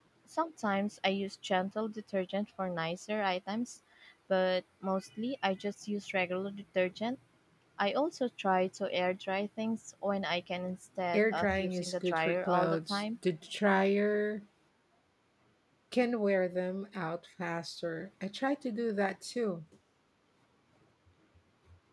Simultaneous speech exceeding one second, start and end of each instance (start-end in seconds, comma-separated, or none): 11.1-13.0